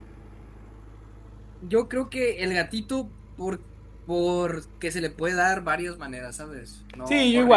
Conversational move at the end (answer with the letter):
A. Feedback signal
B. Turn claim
B